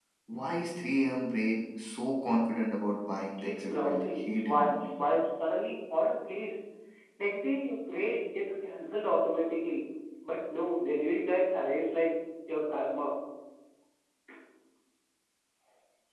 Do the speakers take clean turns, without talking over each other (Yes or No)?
No